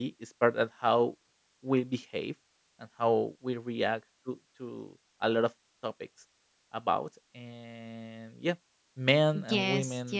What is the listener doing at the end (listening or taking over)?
taking over